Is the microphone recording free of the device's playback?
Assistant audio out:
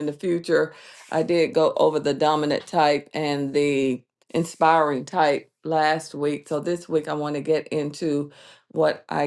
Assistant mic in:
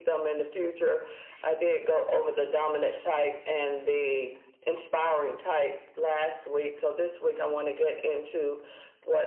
No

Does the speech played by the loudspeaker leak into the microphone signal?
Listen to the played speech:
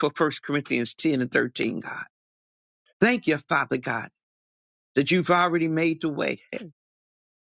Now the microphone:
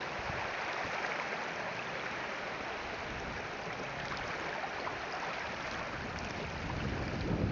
No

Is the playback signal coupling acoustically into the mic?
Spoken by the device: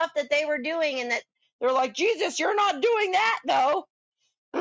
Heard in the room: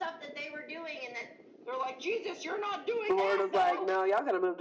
Yes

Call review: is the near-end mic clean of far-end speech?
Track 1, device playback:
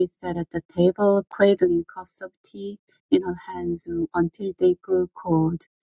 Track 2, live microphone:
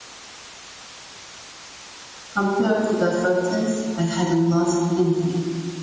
Yes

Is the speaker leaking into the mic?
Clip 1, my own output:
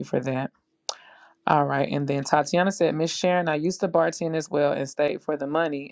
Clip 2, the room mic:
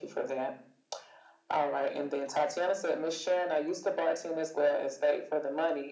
Yes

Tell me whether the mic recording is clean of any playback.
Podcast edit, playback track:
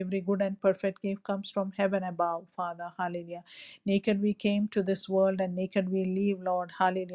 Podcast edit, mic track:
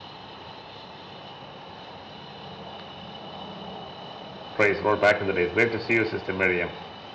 Yes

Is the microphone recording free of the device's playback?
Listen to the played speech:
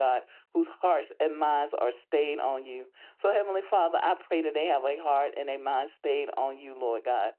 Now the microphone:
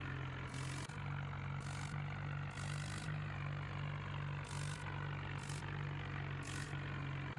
Yes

